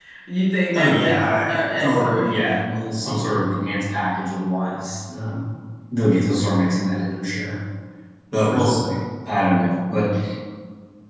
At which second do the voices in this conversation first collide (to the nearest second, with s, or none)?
1 s